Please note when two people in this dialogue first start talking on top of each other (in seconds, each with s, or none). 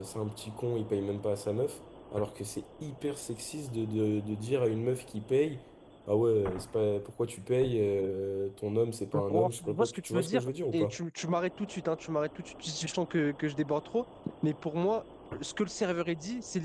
9.1 s